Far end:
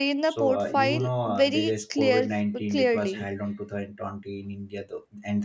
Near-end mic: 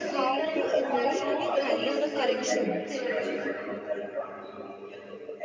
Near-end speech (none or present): present